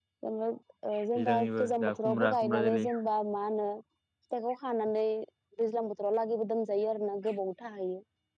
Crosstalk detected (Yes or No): Yes